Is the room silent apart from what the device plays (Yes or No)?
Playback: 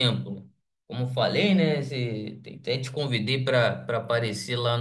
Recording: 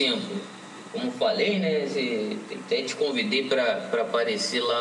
Yes